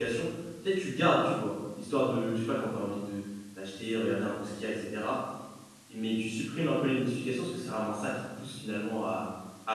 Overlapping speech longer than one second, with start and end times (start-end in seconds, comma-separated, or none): none